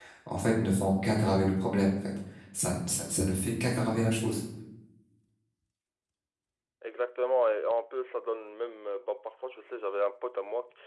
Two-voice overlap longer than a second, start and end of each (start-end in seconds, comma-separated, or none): none